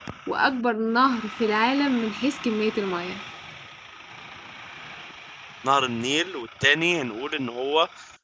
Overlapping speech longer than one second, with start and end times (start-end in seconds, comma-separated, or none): none